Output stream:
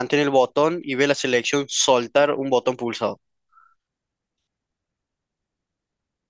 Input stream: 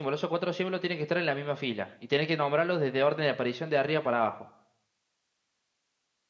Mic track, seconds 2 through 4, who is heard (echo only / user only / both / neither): user only